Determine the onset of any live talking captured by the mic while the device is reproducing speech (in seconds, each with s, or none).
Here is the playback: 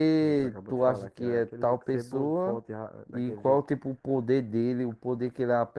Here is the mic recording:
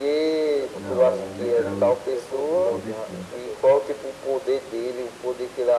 0.7 s